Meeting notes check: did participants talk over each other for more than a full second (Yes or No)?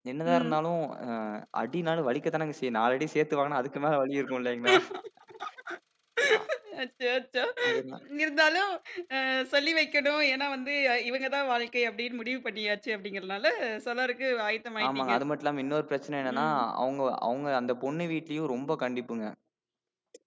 No